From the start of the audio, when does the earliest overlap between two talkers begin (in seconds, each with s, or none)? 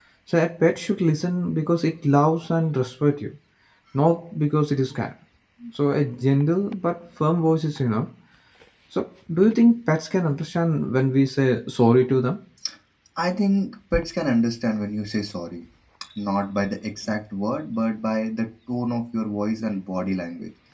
none